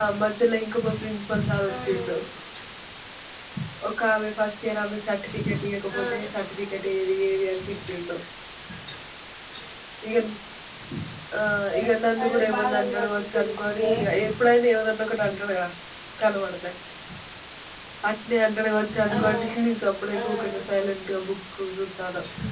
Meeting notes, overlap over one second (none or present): present